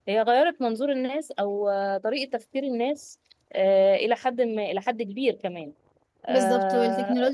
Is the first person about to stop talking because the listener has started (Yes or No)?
Yes